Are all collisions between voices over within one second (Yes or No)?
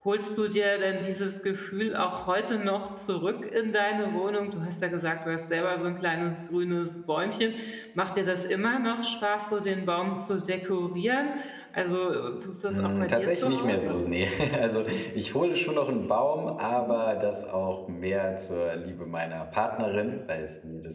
No